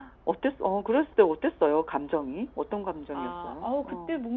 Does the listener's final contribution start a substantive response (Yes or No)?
Yes